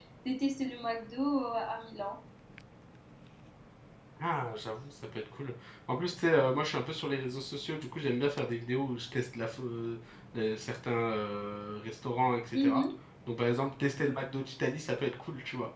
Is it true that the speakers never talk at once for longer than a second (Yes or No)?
Yes